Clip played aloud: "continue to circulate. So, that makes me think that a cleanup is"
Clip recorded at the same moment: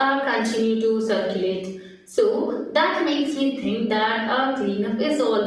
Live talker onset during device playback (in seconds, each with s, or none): none